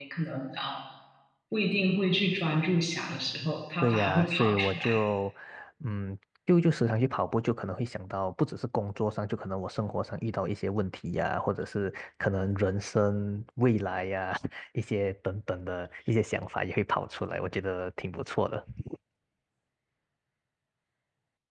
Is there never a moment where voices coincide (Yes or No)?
No